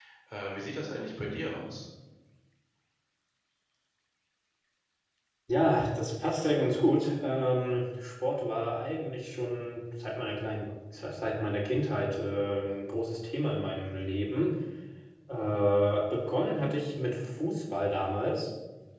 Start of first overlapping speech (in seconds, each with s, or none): none